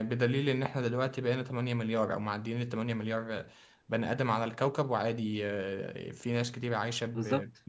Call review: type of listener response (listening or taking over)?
taking over